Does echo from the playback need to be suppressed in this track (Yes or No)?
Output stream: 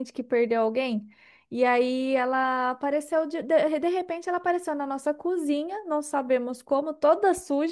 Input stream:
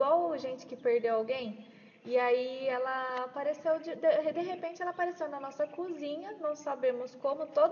Yes